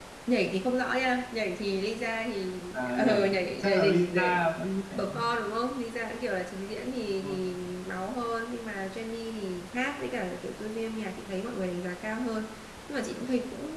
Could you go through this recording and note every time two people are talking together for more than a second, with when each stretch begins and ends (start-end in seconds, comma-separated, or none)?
2.7-4.4